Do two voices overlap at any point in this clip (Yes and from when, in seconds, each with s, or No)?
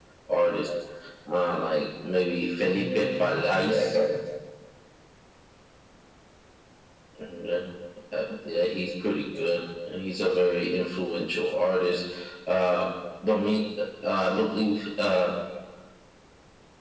Yes, from 2.6 s